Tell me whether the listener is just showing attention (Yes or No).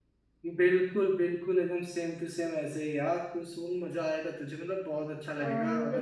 No